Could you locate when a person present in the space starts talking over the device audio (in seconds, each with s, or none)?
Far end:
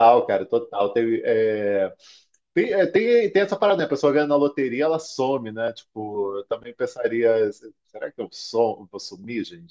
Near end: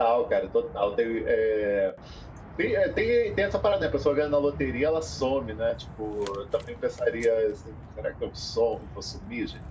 none